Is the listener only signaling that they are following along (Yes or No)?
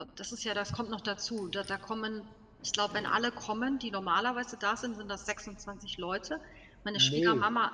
Yes